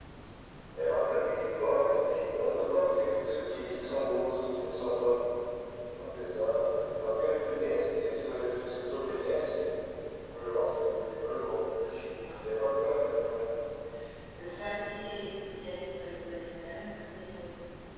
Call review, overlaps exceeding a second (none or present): none